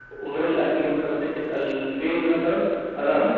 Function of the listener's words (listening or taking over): listening